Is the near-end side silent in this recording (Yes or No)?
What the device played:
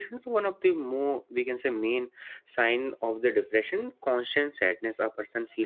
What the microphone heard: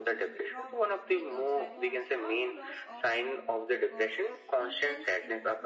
No